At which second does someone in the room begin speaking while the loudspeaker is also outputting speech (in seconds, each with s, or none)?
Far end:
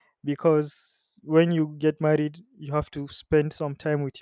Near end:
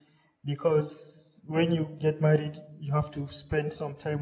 none